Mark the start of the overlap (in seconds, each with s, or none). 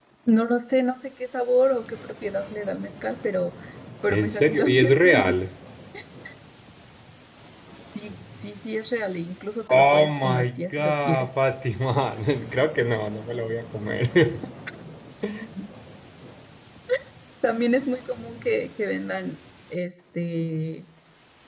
4.1 s